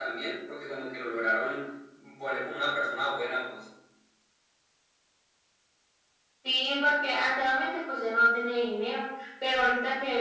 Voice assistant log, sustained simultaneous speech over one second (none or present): none